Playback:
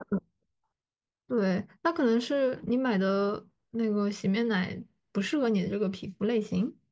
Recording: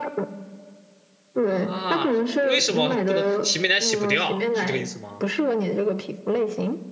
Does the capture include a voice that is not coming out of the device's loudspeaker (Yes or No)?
Yes